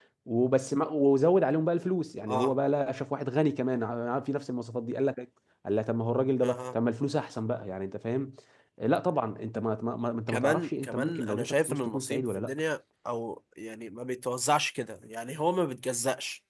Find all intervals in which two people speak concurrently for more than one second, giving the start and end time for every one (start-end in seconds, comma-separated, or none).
10.3-12.6